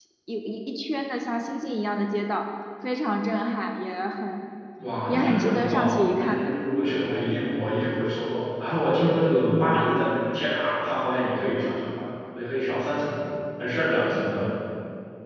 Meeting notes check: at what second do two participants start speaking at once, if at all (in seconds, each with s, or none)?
5.1 s